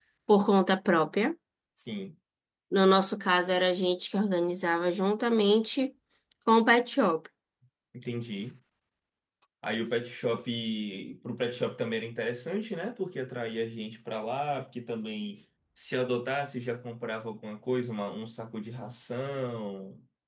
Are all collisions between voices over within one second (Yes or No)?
Yes